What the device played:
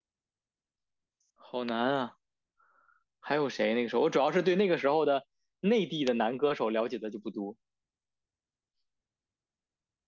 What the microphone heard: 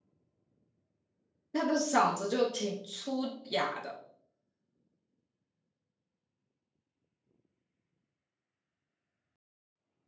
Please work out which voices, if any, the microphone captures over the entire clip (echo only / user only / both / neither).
user only